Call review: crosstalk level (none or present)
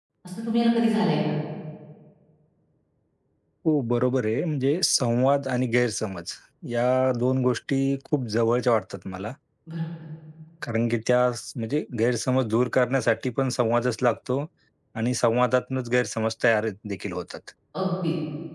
none